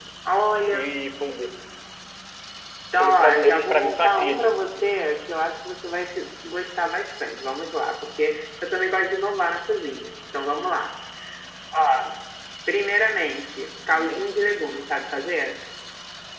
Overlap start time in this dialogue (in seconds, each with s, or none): 3.0 s